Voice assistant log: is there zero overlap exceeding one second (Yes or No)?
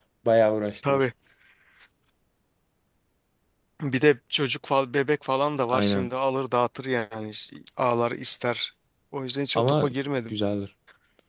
Yes